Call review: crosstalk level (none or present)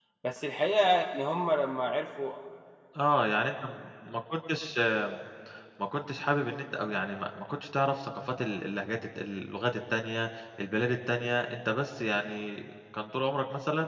none